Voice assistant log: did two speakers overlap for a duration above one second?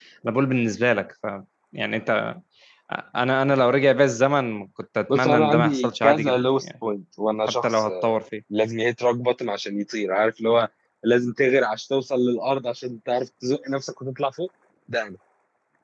Yes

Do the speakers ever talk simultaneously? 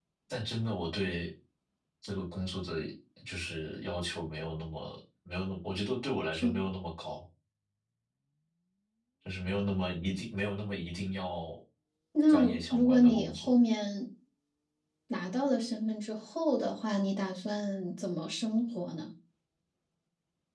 Yes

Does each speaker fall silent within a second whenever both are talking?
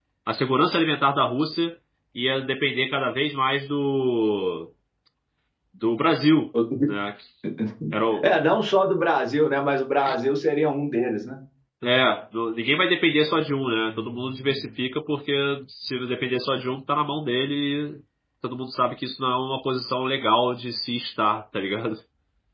Yes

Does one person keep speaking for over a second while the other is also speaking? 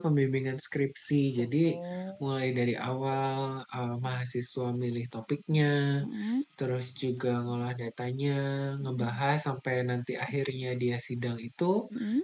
No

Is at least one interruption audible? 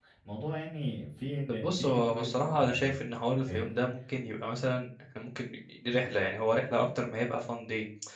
Yes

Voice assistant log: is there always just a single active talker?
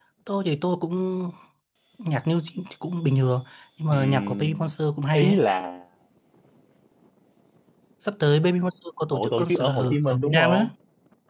No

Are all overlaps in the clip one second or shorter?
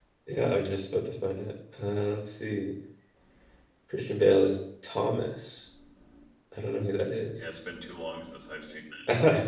Yes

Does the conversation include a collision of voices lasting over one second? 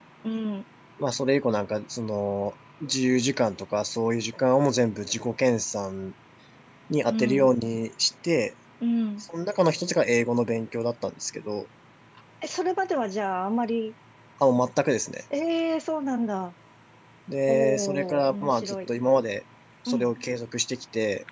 Yes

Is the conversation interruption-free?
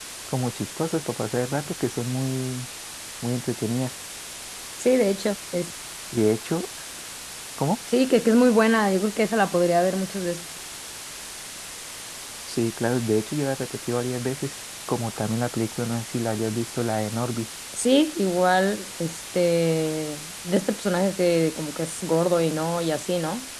Yes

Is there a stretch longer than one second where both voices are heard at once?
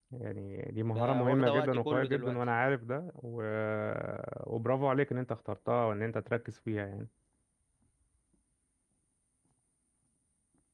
Yes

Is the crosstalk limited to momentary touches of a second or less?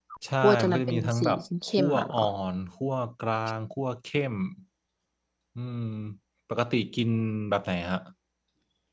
No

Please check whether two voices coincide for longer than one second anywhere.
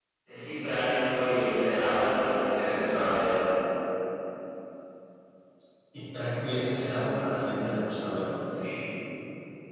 No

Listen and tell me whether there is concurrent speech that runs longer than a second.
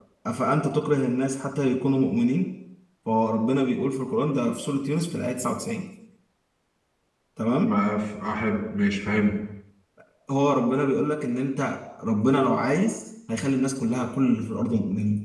No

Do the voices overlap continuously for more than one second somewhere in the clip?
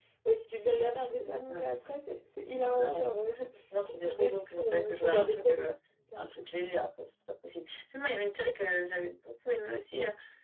Yes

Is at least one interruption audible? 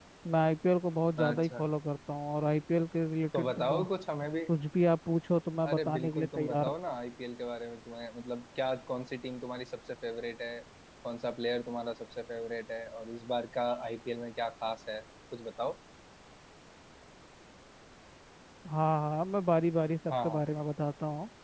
Yes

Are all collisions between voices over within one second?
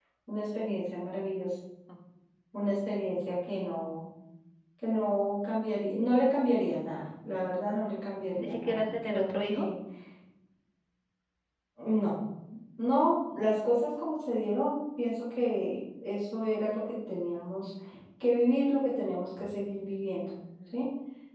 No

